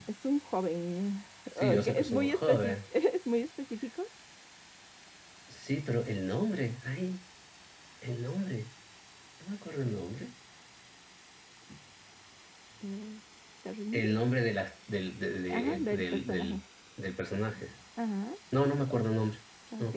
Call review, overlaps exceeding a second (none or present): present